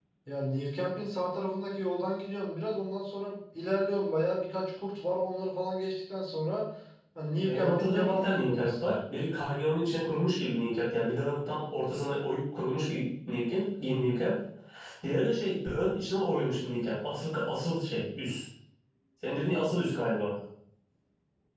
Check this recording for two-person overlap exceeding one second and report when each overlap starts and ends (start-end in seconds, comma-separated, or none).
7.4-9.0